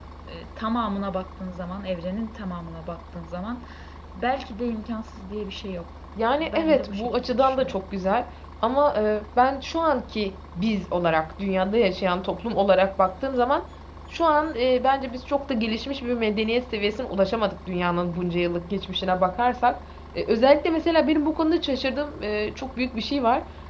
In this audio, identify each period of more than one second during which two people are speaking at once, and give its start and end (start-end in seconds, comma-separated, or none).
6.4-7.8